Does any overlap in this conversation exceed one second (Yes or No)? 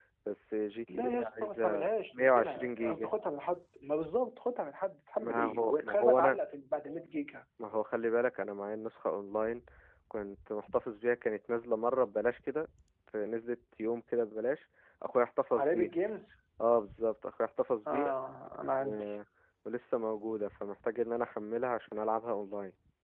Yes